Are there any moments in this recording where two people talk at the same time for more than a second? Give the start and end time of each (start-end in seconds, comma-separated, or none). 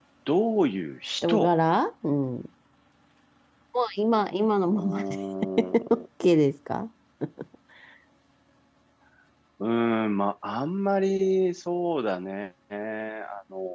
none